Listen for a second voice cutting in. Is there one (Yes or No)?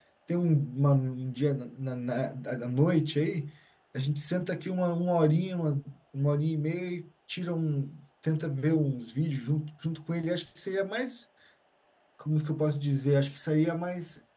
No